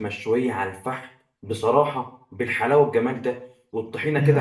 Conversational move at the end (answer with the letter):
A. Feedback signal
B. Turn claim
A